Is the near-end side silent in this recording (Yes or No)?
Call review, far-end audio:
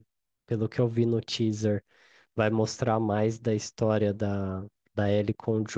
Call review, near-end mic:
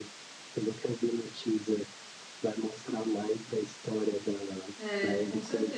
No